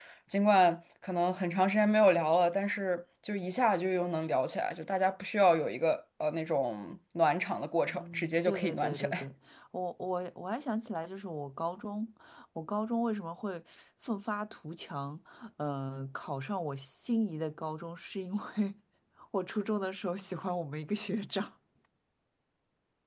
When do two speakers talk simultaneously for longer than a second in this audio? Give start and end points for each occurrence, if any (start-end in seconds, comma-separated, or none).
7.9-9.2